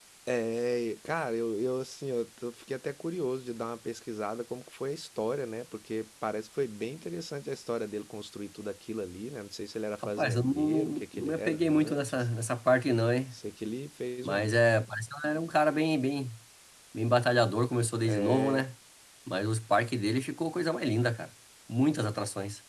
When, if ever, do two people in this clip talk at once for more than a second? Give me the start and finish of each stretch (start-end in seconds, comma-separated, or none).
10.2-12.3